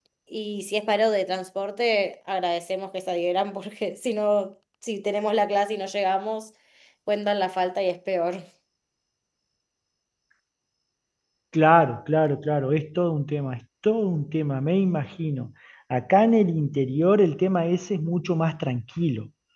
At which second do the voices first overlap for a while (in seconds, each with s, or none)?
none